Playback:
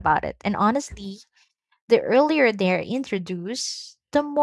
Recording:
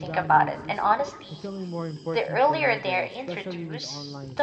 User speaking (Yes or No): Yes